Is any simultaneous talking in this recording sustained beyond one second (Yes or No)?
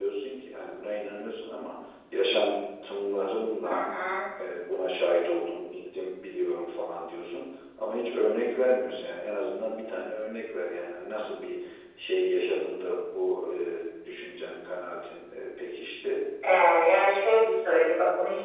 No